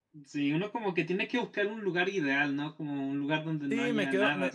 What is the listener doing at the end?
taking over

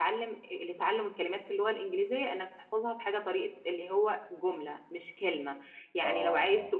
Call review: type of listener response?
listening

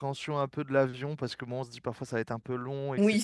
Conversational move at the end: taking over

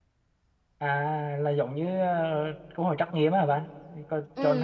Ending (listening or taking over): taking over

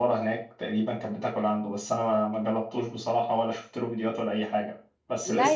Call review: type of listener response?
taking over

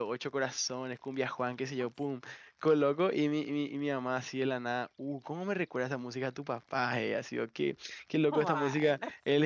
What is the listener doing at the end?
listening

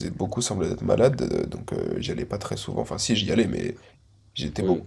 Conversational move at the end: listening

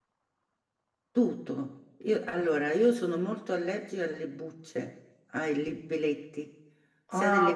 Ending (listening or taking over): listening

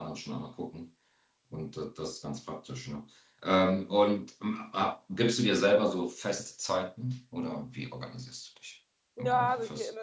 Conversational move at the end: taking over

